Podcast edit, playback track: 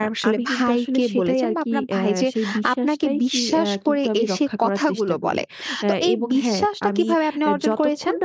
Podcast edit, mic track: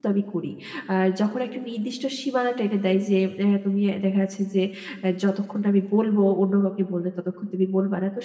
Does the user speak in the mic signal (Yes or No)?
Yes